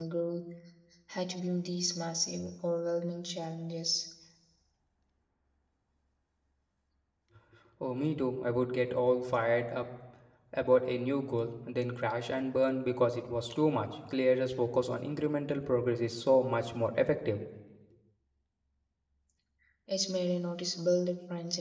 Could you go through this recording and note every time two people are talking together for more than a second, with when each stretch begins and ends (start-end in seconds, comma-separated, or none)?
none